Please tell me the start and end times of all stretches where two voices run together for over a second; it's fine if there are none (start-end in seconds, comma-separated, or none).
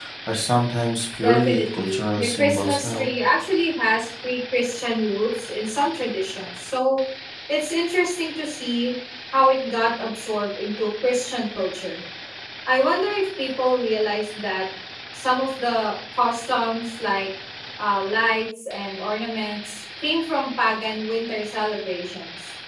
1.2-3.1